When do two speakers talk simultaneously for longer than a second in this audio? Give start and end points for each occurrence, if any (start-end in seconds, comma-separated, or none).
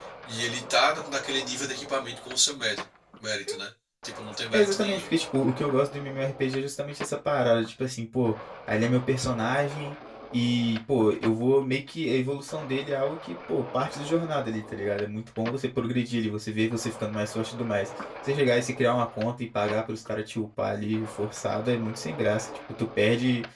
none